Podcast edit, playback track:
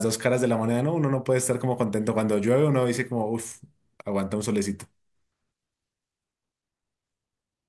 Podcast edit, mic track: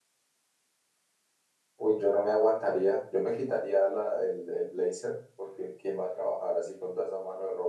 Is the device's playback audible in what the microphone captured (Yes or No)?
No